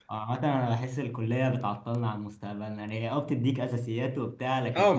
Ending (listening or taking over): taking over